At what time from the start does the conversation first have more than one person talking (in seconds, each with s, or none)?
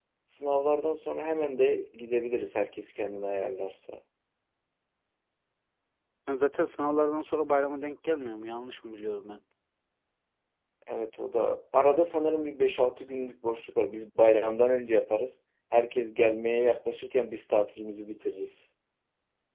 none